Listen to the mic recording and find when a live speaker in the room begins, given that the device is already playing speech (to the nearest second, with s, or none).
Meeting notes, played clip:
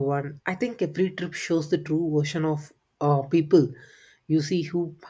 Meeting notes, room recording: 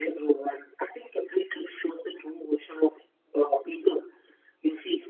none